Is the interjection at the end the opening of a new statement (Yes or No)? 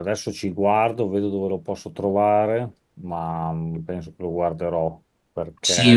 Yes